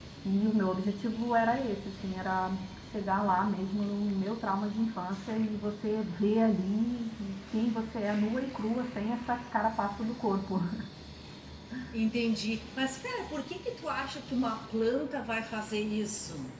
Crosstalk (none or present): none